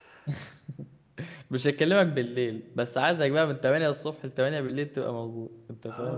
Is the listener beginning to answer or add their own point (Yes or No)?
Yes